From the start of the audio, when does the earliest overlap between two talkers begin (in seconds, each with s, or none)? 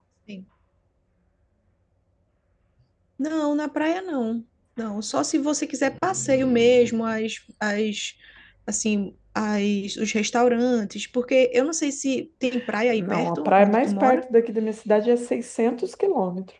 12.9 s